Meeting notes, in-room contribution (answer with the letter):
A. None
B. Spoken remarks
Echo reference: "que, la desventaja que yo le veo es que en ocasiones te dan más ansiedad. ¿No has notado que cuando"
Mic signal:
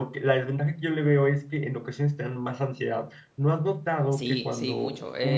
B